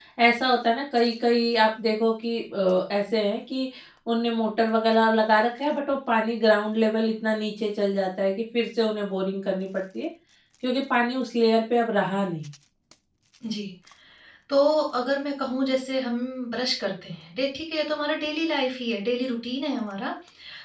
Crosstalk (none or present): none